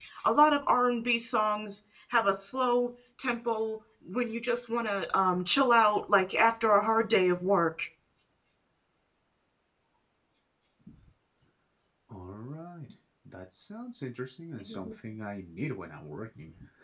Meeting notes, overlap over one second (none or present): none